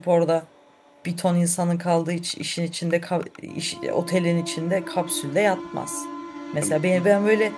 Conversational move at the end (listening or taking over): listening